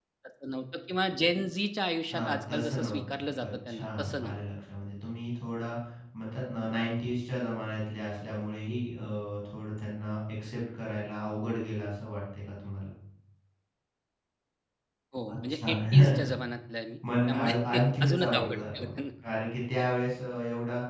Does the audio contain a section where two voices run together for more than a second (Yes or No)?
Yes